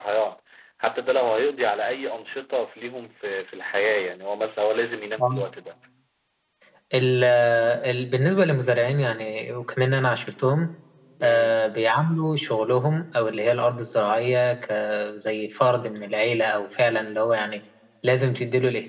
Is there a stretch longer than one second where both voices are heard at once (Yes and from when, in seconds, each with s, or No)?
No